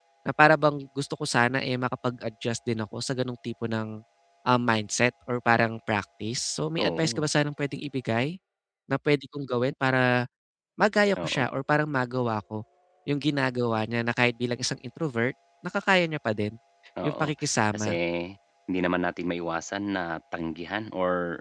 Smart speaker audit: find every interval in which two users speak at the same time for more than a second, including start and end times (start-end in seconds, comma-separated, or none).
none